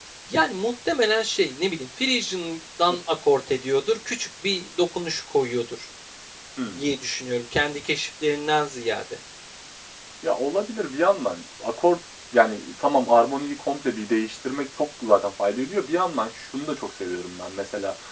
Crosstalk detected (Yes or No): No